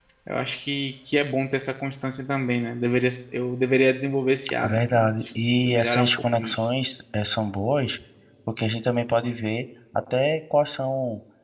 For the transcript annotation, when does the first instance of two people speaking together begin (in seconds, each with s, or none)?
4.4 s